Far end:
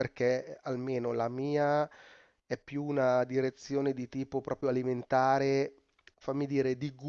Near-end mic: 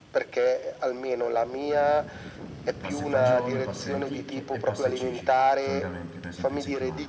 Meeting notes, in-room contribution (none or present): present